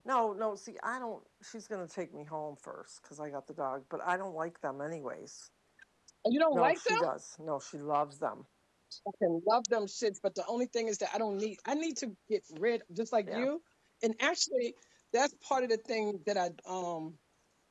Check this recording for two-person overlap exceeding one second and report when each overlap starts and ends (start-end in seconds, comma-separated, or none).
none